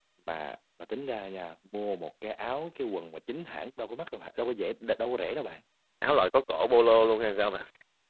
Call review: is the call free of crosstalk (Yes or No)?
Yes